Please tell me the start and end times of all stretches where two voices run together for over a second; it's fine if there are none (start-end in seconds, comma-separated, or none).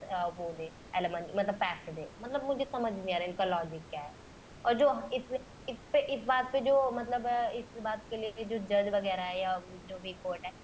none